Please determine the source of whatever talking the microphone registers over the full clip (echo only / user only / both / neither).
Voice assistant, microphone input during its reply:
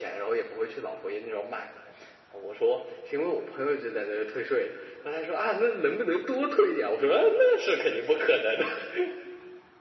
echo only